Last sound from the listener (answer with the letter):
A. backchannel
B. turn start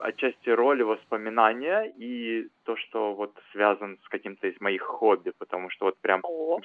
A